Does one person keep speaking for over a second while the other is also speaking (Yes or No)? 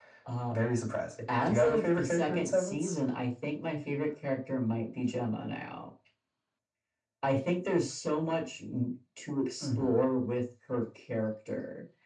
Yes